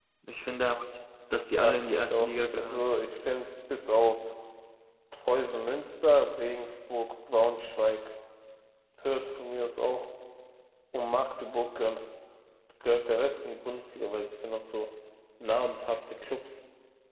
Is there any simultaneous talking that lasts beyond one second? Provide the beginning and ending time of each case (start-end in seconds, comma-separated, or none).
1.6-2.9